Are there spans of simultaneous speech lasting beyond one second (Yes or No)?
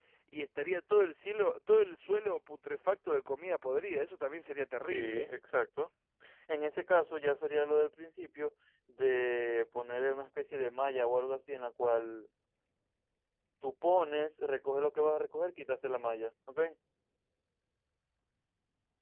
No